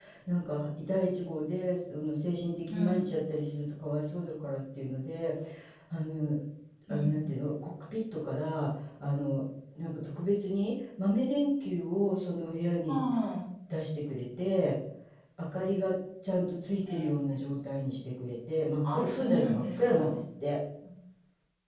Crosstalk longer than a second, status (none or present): present